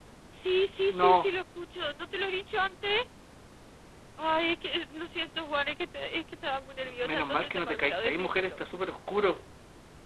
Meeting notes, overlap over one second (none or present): present